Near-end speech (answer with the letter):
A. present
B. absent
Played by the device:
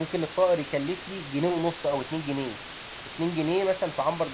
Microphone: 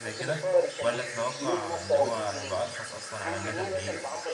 A